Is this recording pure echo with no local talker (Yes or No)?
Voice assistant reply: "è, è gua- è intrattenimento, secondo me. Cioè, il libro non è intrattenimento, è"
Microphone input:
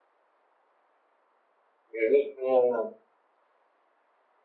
No